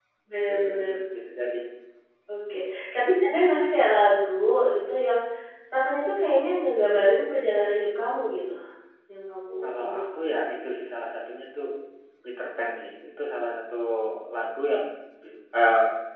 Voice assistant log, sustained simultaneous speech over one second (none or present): none